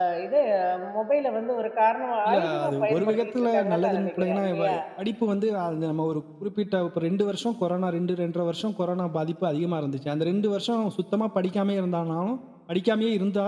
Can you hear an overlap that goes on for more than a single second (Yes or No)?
Yes